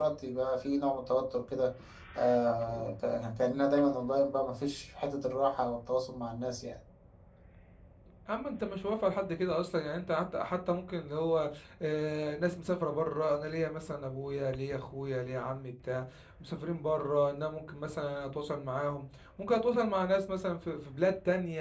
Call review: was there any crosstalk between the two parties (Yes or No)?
No